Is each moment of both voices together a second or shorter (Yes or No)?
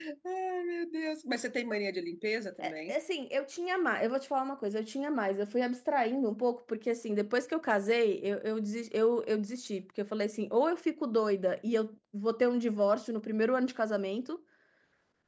Yes